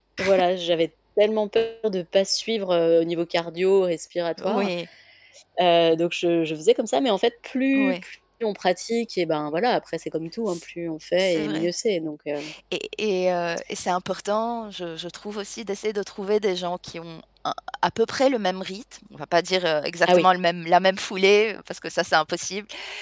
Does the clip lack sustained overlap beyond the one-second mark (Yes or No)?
Yes